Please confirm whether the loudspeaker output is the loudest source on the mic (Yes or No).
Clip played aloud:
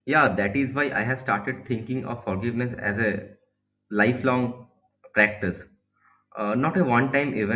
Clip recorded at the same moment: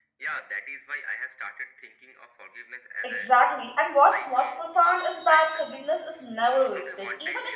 No